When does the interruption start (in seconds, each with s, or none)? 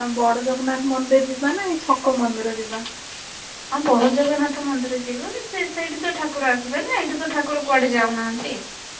none